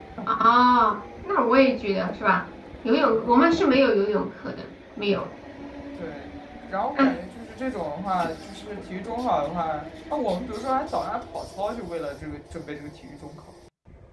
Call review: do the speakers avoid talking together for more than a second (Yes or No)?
Yes